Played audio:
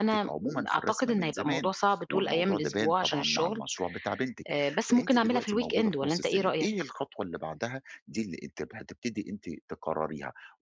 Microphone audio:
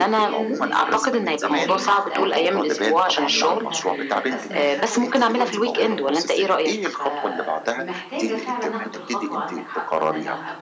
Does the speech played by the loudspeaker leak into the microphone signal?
Yes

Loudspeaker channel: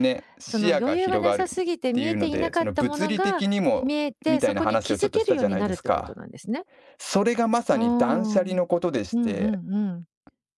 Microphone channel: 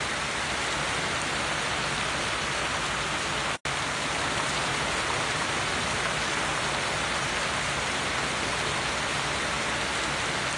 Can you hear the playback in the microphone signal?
No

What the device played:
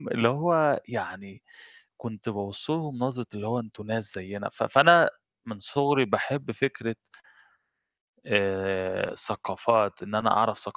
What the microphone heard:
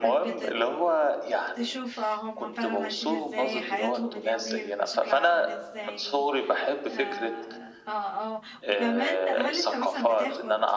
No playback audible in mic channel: No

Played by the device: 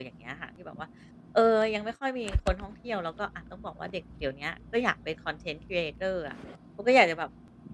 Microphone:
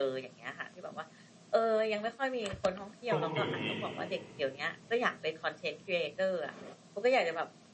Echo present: Yes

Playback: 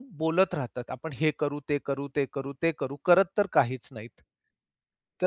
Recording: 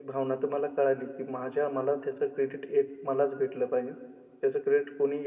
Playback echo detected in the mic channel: No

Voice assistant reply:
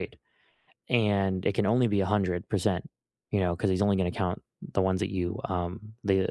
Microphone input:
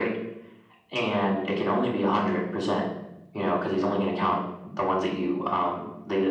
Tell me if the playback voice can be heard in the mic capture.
Yes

